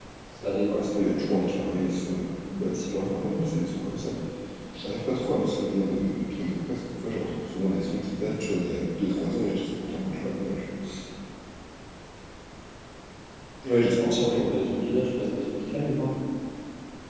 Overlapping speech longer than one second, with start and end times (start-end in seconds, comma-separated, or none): none